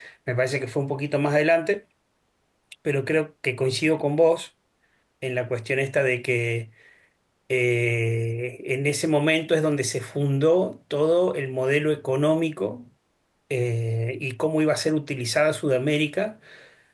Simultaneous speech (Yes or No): No